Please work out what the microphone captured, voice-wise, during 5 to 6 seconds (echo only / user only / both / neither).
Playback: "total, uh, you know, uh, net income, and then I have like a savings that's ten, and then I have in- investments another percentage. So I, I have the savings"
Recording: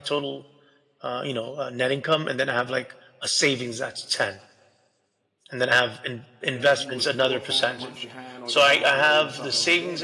echo only